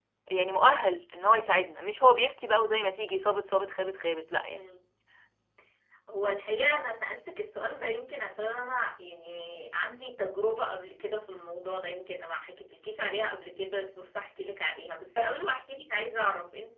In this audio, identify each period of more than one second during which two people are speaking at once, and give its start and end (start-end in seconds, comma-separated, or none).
none